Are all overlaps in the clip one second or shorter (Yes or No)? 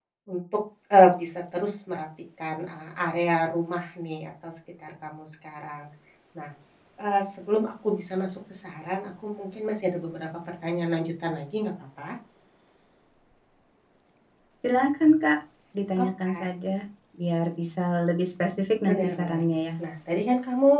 Yes